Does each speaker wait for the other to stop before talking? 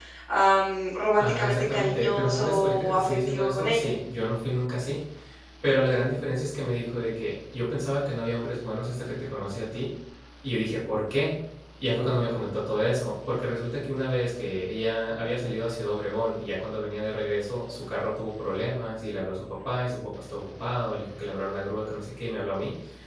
No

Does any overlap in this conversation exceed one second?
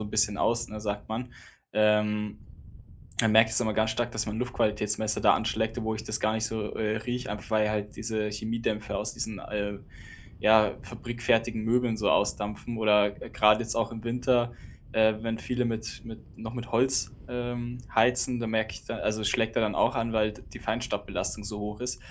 No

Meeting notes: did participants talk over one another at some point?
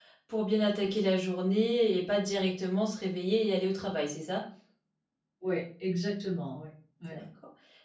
No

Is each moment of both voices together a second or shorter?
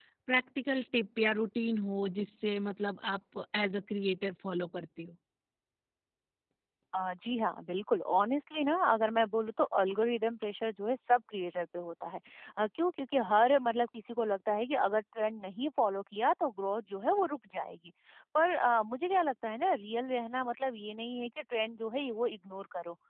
Yes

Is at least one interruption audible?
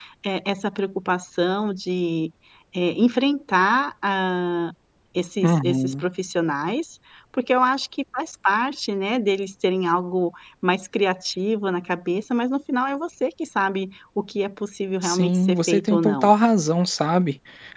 Yes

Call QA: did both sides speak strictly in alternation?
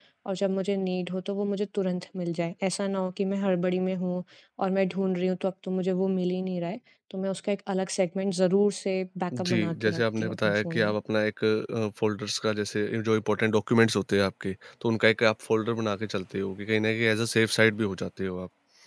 No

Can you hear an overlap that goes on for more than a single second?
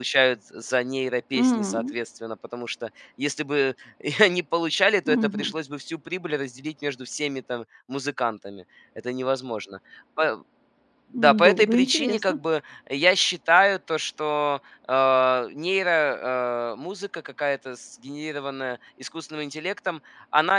Yes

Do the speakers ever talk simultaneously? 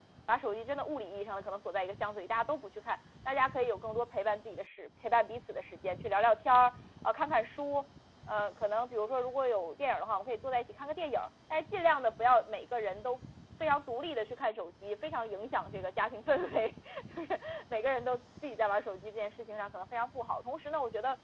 No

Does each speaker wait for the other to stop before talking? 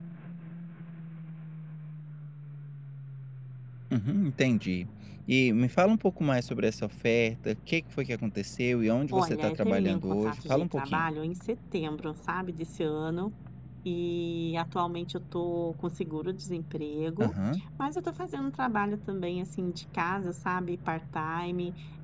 No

